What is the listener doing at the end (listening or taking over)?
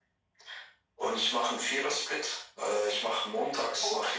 listening